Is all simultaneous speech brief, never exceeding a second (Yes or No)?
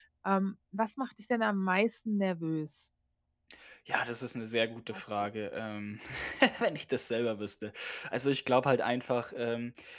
Yes